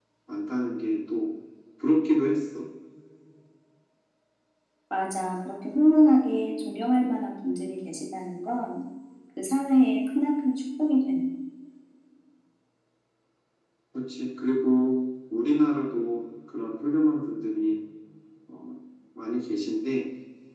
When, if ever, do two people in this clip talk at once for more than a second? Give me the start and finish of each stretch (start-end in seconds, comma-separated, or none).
none